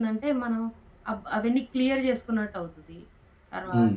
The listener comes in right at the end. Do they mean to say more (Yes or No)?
Yes